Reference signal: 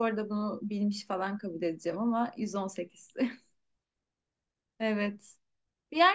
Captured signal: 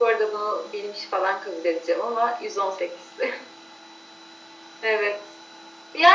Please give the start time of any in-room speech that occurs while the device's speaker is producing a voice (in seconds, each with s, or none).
none